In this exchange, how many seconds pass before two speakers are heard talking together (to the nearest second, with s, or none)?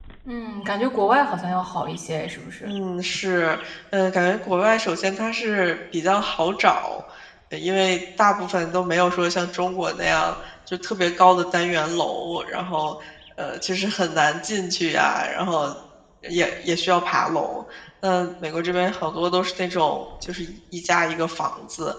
none